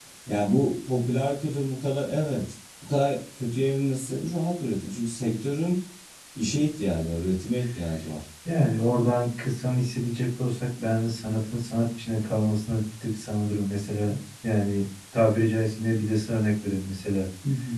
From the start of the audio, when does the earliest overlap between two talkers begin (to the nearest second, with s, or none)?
none